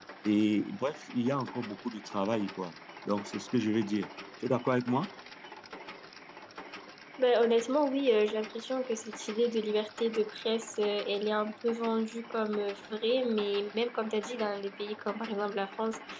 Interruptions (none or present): none